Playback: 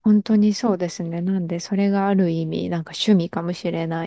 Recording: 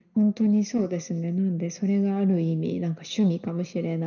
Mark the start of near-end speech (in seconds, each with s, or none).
none